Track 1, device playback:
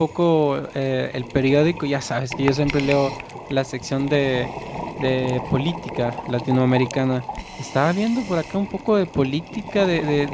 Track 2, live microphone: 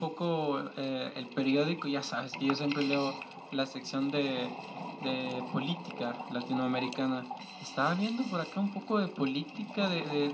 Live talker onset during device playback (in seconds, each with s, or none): none